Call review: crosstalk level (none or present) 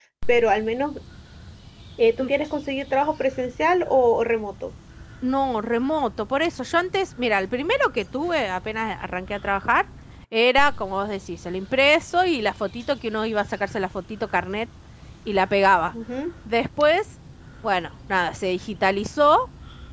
none